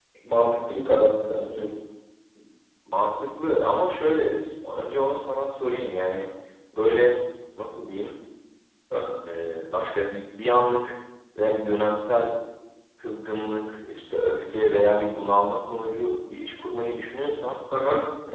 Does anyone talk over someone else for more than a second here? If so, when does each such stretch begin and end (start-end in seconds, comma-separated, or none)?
none